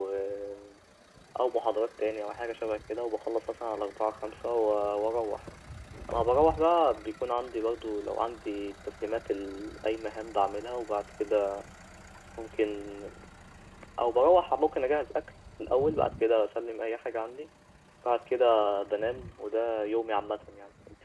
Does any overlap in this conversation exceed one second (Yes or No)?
No